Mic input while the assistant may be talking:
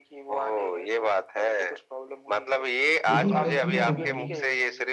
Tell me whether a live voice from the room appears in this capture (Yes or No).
Yes